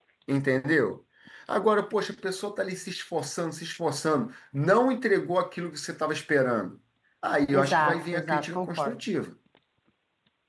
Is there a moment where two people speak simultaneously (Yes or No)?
Yes